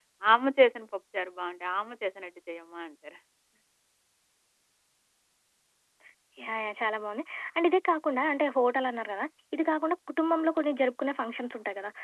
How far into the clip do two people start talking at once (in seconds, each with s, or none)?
none